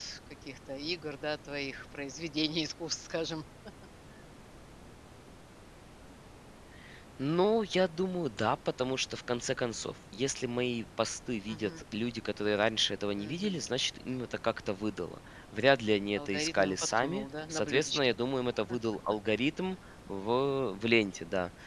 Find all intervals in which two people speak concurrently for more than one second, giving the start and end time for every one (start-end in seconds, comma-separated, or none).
16.3-18.1